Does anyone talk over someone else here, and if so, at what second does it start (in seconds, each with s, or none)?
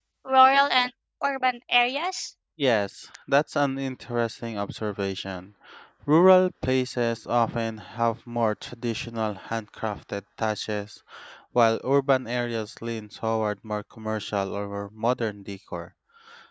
none